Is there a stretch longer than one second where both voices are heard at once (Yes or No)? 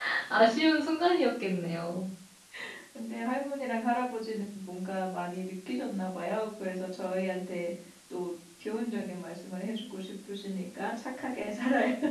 No